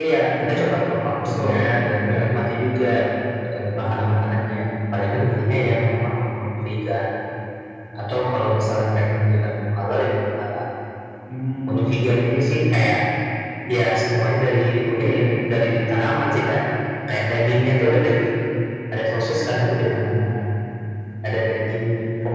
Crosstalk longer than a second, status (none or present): none